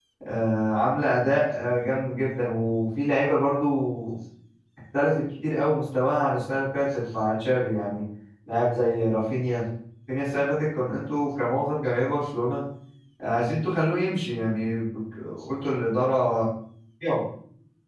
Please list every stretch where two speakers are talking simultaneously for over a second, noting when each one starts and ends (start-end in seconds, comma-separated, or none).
none